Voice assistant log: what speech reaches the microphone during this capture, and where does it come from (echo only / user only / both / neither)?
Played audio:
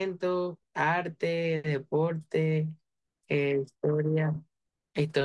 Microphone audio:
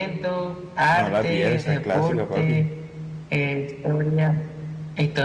both